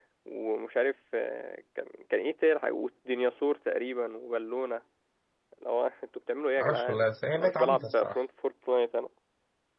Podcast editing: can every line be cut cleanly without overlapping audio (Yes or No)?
No